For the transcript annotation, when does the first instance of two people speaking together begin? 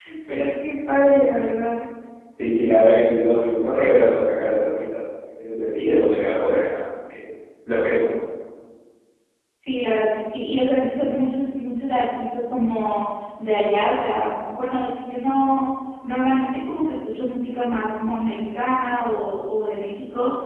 none

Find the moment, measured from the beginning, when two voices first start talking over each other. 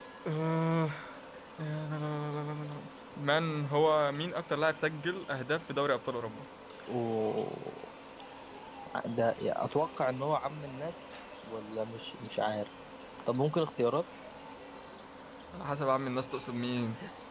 none

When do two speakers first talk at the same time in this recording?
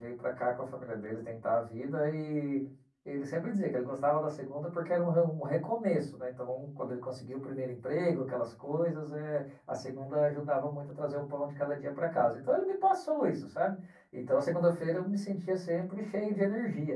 none

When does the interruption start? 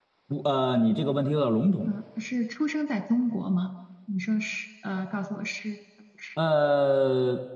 none

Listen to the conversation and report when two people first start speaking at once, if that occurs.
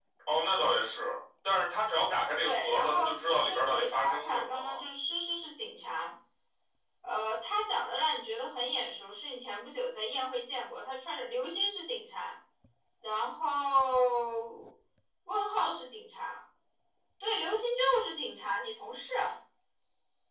2.4 s

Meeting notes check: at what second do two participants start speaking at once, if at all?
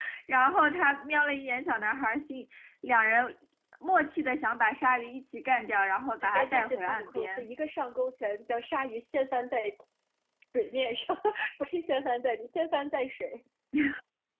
6.2 s

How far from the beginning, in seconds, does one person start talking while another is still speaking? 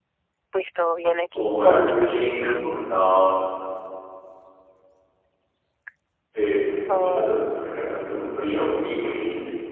1.3 s

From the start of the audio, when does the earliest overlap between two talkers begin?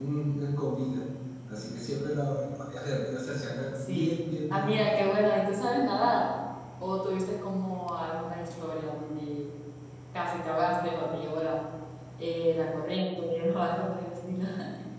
3.8 s

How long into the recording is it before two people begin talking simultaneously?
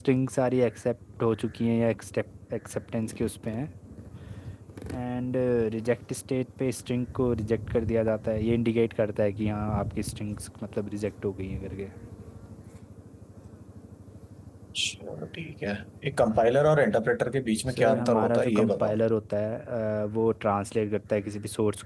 17.7 s

